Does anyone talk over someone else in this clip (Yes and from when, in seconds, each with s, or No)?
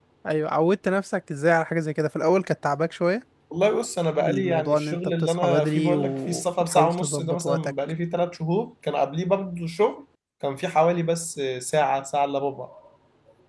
Yes, from 4.2 s